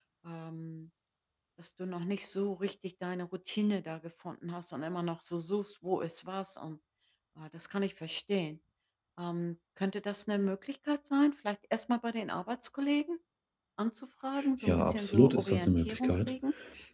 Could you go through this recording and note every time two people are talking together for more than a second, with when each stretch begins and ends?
14.6-16.3

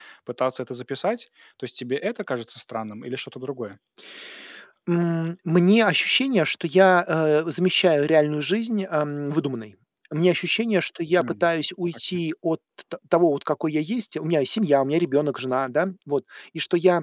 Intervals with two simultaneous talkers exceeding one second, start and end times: none

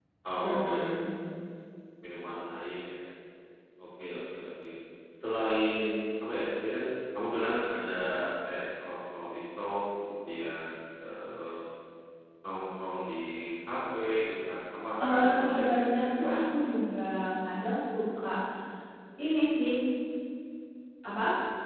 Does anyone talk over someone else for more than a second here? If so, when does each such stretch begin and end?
15.1-16.4

